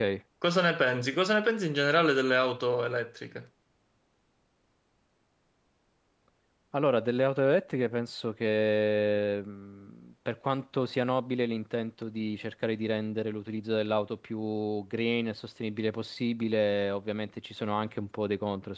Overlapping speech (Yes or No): No